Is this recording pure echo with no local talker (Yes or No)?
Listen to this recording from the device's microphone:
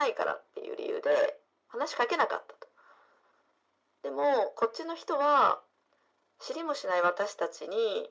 Yes